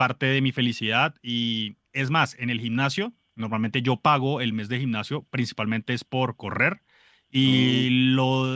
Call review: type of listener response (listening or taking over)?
listening